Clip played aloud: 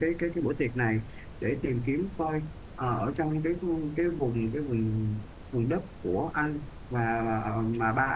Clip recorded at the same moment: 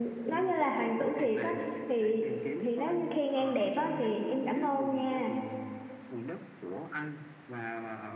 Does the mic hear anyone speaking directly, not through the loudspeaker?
Yes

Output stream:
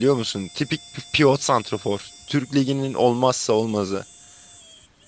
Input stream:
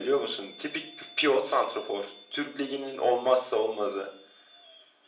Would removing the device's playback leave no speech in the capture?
Yes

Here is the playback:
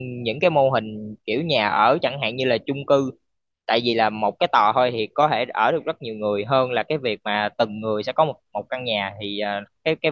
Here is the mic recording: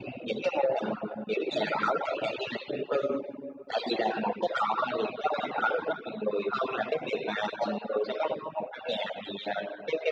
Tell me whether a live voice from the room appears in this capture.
No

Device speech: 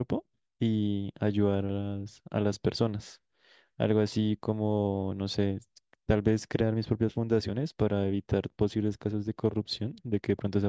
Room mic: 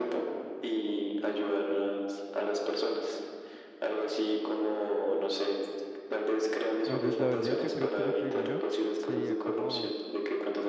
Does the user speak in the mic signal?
Yes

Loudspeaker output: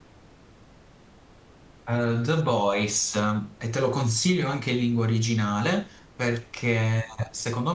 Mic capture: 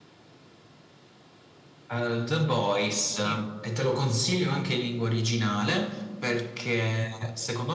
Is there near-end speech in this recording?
Yes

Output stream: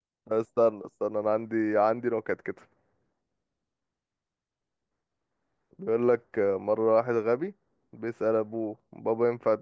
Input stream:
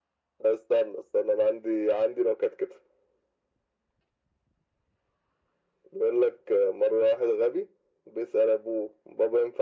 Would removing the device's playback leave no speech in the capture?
Yes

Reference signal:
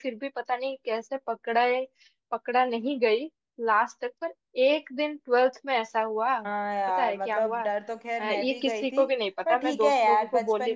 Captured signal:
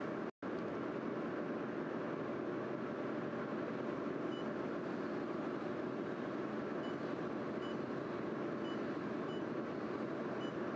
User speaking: No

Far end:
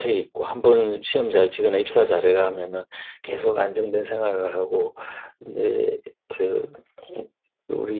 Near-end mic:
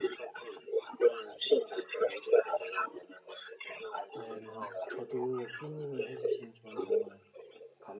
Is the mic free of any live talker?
No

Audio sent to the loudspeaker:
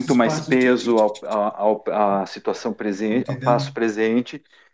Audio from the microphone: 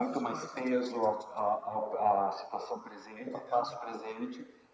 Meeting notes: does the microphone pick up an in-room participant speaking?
No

